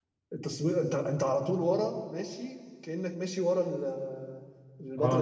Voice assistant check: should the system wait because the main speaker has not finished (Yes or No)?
No